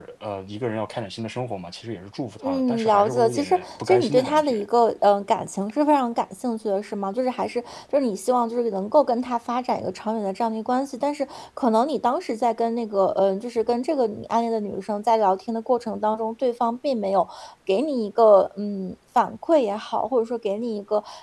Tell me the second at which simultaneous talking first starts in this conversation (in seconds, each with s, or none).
2.4 s